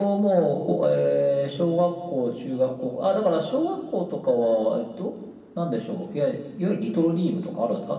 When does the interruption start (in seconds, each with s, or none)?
none